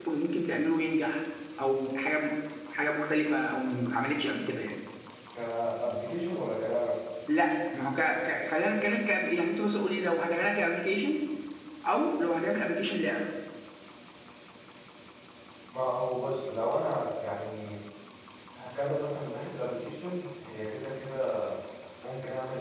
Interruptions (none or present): none